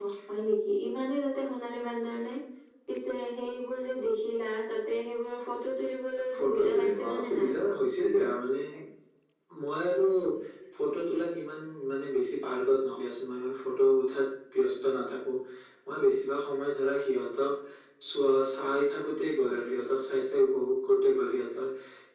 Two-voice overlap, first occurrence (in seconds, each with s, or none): 6.2 s